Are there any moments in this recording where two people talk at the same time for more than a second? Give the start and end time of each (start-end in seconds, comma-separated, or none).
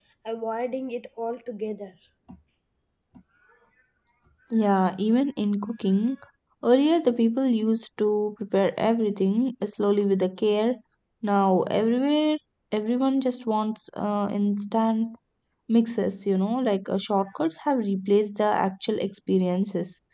none